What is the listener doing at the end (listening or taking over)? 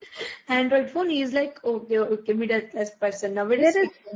taking over